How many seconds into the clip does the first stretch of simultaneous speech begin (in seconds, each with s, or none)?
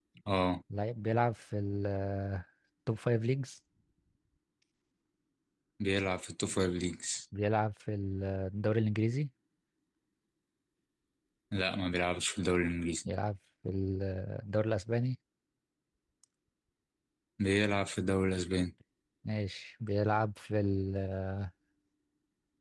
none